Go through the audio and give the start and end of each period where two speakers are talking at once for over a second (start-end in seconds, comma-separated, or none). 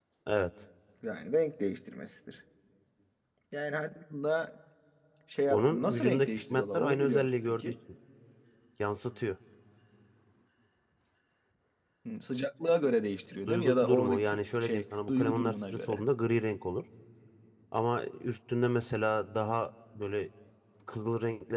5.5-7.7, 13.5-16.0